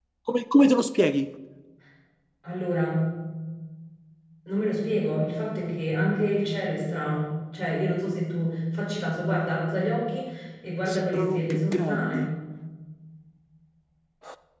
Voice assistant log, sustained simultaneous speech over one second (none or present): present